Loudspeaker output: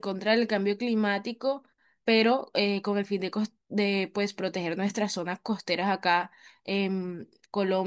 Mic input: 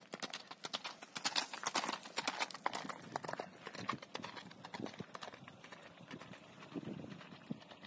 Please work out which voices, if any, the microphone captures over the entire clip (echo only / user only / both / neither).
neither